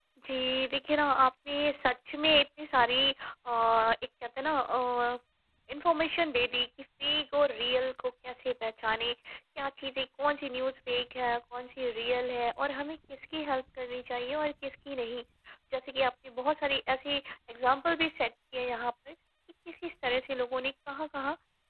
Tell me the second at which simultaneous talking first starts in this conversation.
none

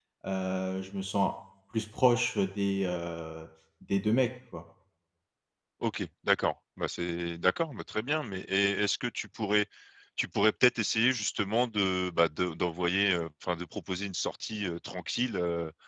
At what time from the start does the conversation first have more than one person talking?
none

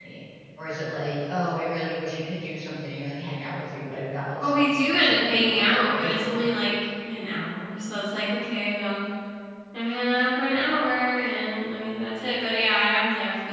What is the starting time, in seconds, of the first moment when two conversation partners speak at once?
4.4 s

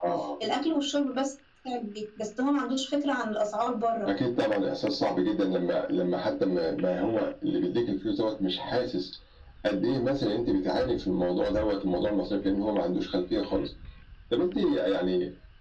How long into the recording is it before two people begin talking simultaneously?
none

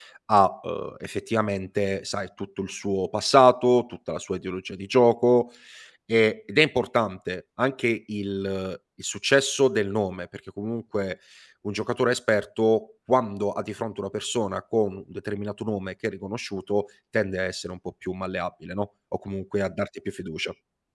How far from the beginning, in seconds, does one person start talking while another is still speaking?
none

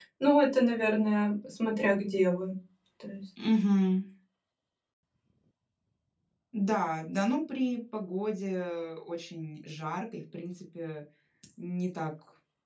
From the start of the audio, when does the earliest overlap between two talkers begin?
none

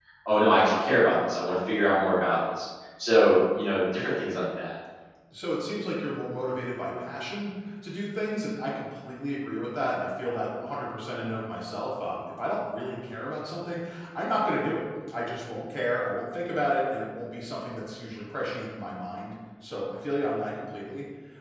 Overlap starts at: none

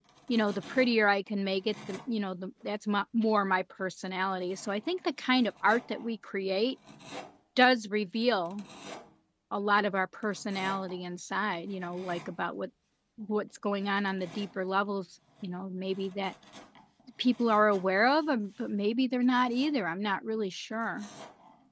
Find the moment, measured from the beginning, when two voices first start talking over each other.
none

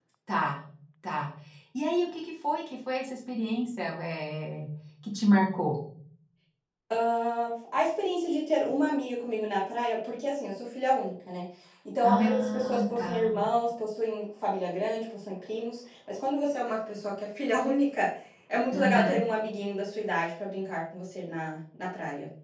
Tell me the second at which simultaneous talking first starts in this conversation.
12.0 s

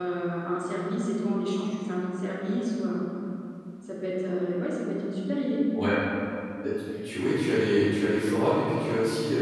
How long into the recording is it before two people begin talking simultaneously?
none

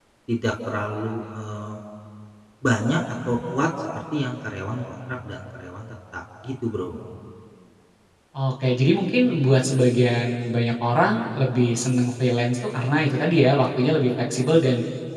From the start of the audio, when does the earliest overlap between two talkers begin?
none

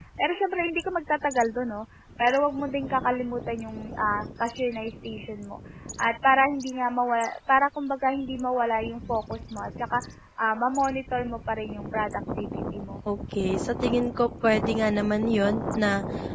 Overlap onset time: none

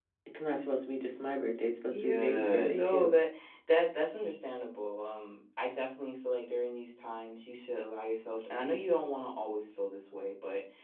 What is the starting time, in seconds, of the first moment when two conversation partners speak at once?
1.9 s

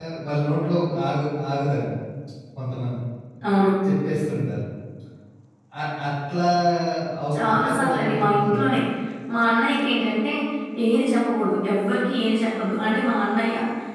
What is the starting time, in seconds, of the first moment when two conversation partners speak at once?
7.4 s

